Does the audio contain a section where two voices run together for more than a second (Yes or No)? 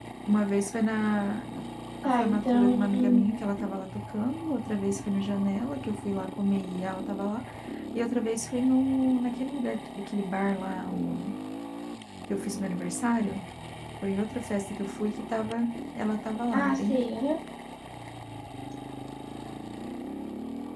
Yes